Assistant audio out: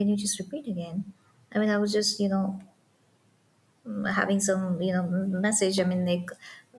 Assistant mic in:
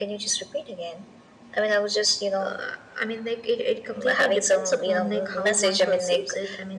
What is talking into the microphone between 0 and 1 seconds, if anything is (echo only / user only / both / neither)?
echo only